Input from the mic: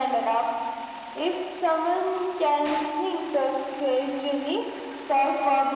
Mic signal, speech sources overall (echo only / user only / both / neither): echo only